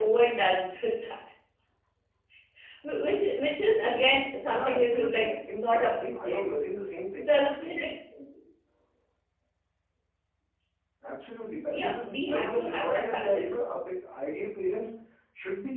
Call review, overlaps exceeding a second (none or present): present